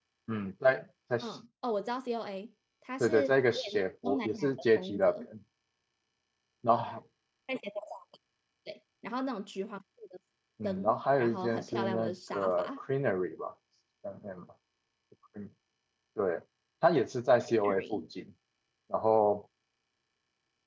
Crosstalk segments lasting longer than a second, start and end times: 3.0-5.3, 10.6-12.8

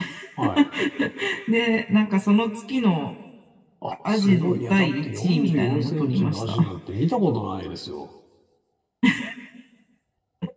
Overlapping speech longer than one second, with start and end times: 4.1-6.5

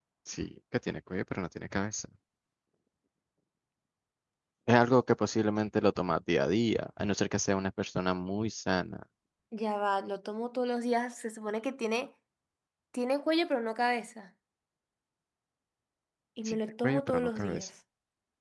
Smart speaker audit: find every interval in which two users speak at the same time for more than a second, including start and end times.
16.4-17.7

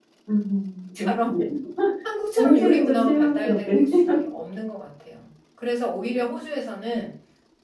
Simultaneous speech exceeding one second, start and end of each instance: 2.4-4.2

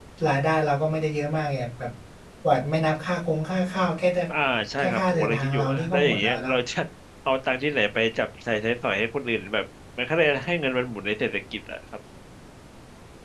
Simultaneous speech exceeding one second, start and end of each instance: 4.8-6.5

